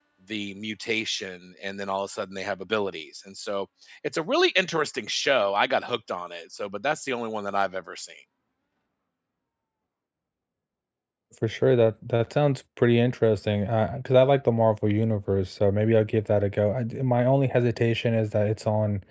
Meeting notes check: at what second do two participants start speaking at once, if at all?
none

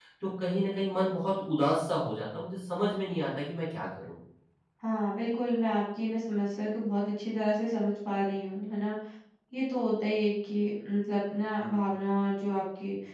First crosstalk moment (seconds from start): none

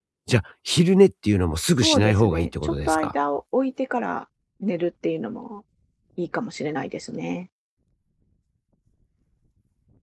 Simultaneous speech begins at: 2 s

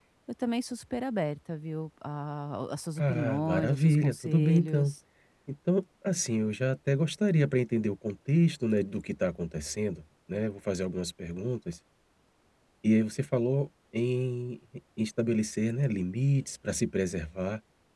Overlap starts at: 3 s

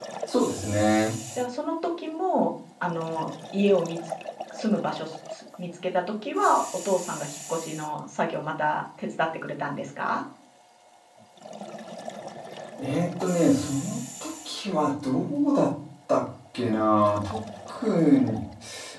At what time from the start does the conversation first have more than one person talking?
none

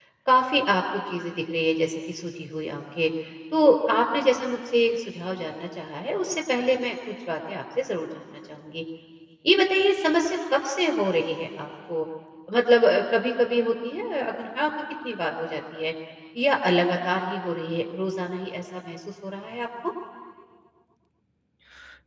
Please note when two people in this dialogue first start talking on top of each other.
none

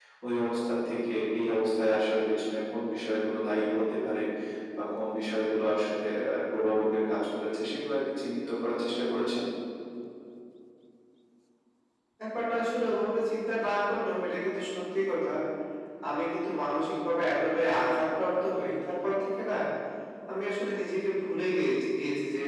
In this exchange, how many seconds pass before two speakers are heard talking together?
none

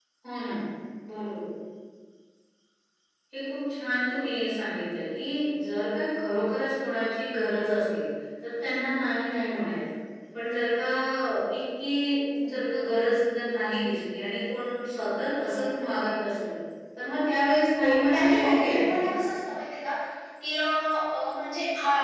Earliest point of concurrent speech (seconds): 18 s

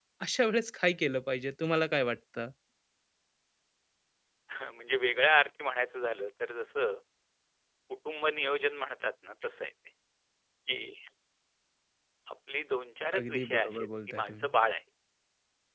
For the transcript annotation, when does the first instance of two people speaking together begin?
13 s

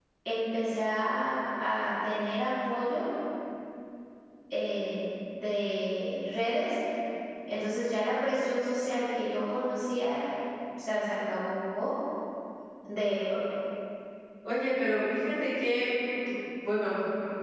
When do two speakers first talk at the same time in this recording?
none

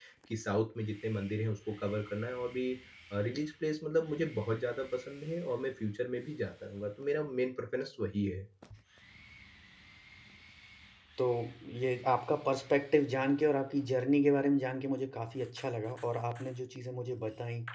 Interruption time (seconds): none

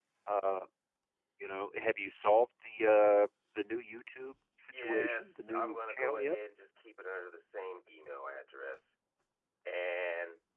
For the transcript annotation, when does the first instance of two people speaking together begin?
5 s

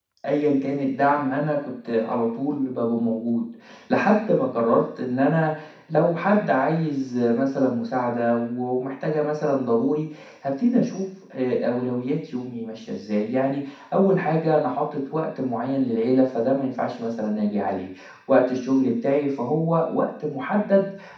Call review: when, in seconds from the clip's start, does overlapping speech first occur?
none

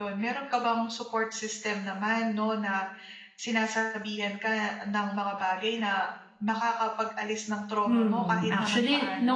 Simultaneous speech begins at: 8 s

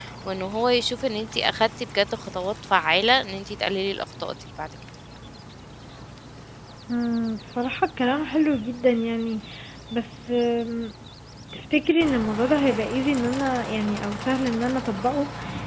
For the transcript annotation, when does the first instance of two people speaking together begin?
none

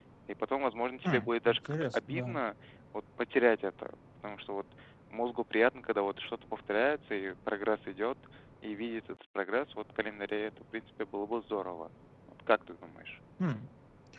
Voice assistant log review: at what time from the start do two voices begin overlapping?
1 s

